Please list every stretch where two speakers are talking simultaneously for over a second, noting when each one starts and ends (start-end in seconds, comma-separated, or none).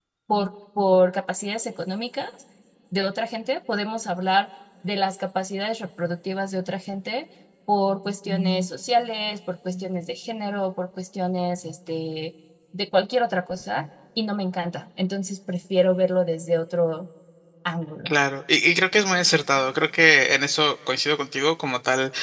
none